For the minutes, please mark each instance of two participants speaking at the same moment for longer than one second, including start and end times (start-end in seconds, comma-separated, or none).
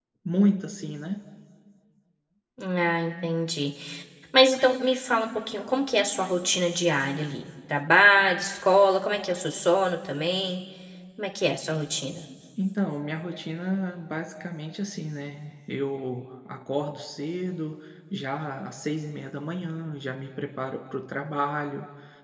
none